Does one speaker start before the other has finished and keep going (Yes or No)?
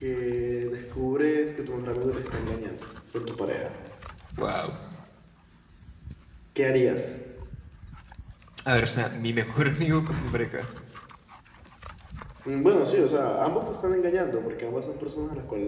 No